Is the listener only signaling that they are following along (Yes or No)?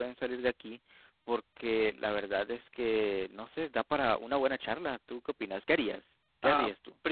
No